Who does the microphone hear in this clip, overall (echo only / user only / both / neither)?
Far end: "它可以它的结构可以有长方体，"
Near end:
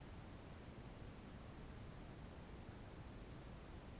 neither